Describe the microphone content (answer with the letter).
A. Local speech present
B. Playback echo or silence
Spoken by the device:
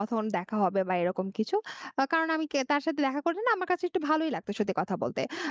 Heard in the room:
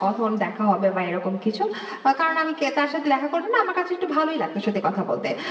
B